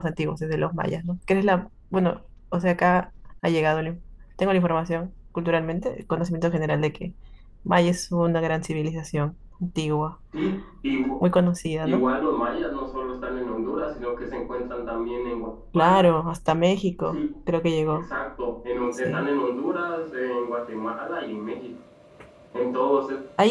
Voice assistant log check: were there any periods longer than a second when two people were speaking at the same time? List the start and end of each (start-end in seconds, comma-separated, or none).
none